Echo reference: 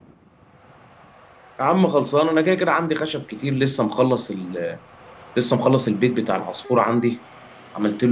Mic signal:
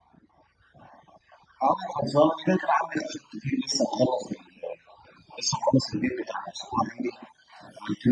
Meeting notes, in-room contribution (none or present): none